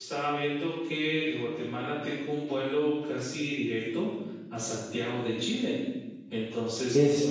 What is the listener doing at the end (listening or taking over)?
listening